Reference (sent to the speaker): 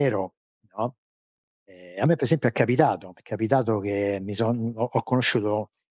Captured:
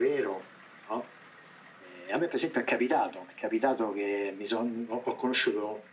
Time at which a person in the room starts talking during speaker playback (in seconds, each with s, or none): none